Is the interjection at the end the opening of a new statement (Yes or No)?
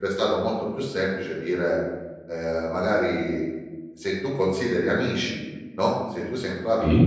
No